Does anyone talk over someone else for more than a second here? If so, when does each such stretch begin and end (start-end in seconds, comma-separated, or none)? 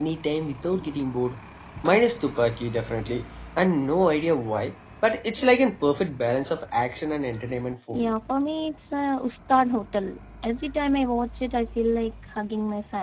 none